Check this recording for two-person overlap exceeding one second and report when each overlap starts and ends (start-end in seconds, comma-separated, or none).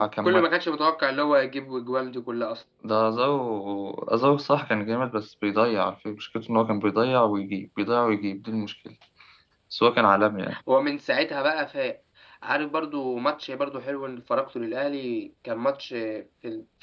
none